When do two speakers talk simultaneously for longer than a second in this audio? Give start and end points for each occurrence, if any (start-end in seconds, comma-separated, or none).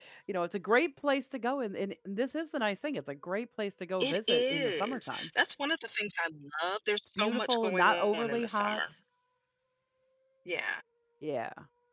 4.0-5.3, 7.2-8.8